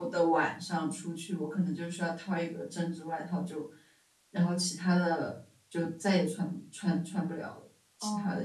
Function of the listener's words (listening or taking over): taking over